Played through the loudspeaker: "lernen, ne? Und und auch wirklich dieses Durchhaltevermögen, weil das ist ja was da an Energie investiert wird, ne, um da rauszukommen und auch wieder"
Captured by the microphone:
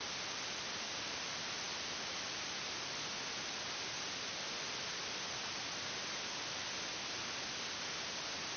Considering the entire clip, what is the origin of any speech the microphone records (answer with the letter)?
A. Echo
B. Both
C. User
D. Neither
D